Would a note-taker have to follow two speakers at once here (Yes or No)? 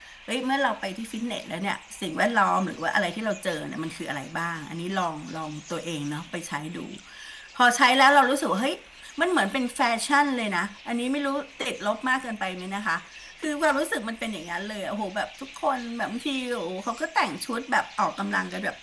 No